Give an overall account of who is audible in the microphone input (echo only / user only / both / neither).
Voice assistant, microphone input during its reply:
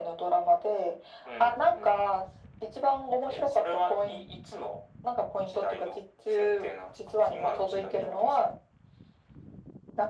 echo only